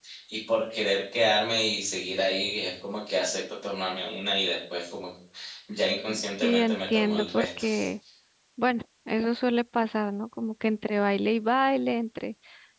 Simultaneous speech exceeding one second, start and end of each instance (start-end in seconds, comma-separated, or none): 6.4-7.6